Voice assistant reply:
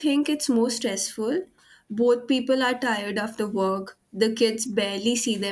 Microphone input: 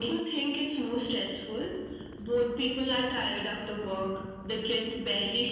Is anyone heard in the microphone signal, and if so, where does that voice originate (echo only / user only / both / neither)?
echo only